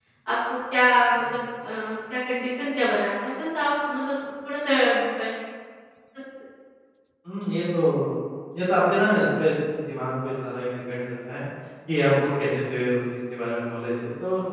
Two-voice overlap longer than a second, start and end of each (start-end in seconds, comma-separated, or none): none